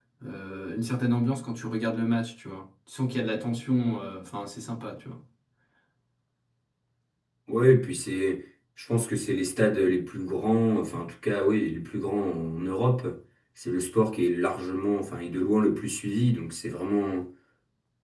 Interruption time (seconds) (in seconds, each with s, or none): none